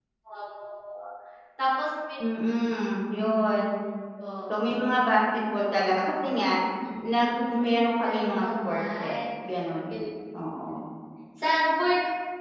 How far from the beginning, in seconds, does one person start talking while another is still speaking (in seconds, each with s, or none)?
7.0 s